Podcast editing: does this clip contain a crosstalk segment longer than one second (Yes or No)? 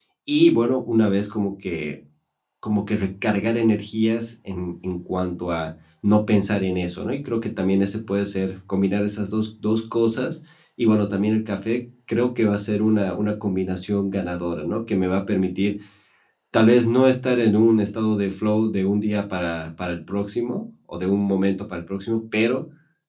No